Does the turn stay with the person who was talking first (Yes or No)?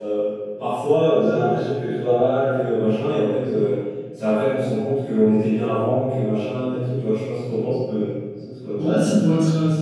No